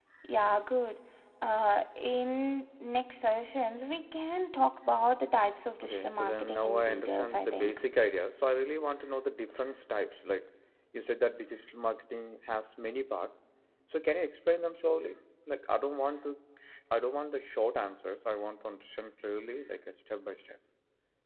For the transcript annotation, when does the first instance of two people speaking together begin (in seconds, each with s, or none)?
5.8 s